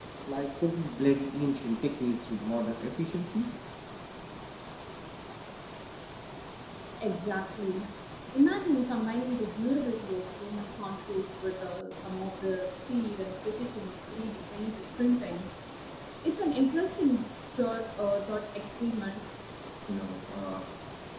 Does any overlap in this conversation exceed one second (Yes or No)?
No